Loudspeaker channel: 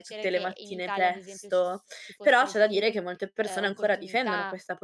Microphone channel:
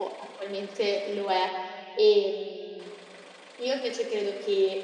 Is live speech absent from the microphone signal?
No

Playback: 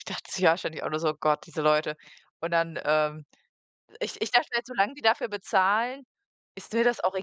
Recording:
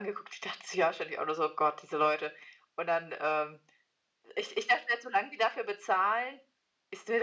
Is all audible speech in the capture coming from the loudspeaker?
Yes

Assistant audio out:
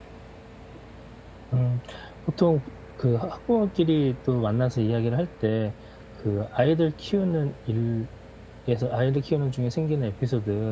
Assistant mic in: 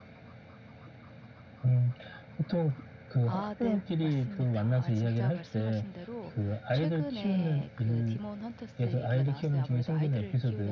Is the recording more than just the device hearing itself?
Yes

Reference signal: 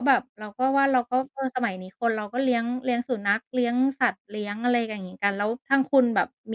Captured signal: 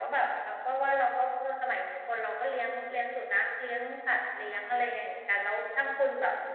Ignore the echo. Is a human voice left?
No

